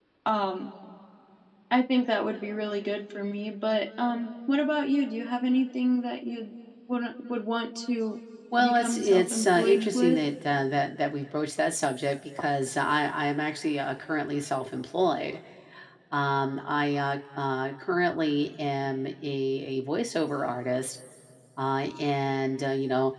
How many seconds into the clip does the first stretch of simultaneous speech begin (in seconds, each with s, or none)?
8.6 s